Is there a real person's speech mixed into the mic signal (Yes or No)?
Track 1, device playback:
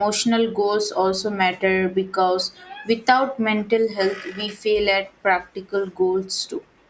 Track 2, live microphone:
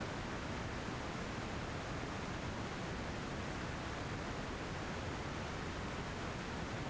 No